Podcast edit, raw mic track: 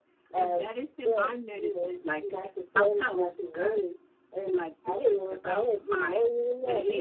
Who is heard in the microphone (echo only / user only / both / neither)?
both